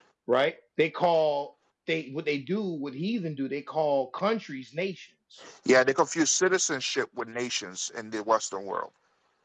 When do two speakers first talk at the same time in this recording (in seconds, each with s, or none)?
none